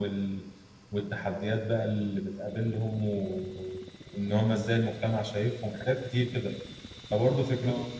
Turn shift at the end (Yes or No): No